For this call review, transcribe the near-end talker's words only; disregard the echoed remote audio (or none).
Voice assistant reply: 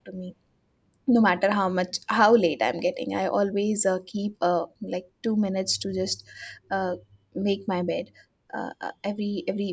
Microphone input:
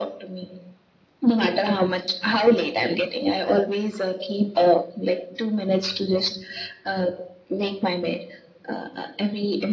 none